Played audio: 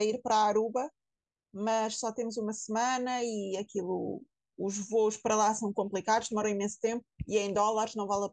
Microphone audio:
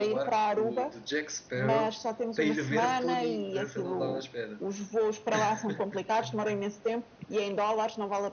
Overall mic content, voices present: both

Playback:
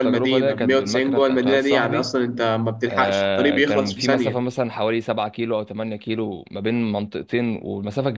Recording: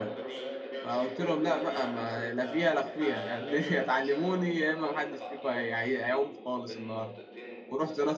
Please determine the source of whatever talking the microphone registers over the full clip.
both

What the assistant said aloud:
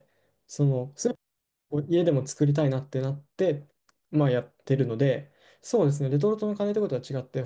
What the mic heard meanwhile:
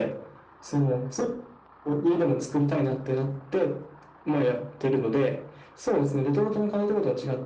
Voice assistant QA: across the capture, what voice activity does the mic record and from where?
echo only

